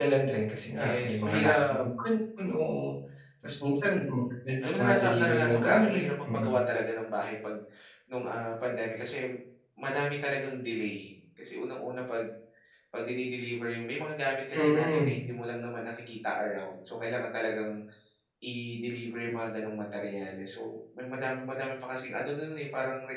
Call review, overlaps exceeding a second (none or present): present